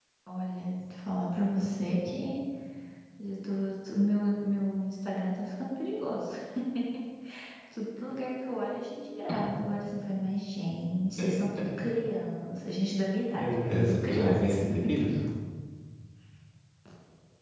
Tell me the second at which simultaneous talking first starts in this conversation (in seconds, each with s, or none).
13.2 s